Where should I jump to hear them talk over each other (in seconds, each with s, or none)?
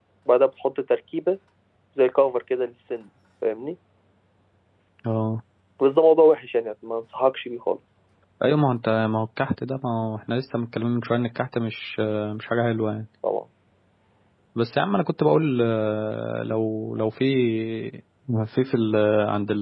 none